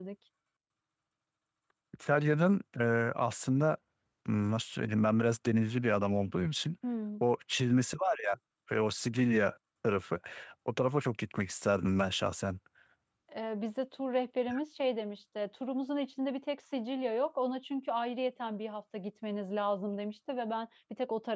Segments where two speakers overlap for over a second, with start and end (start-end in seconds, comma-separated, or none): none